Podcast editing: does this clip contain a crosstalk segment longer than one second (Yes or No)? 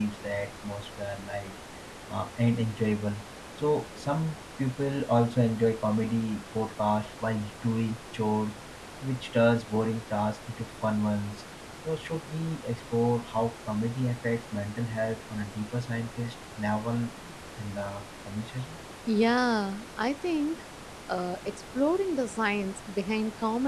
No